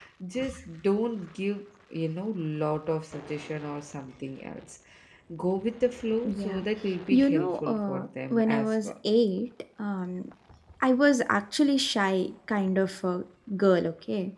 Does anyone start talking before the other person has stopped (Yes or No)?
Yes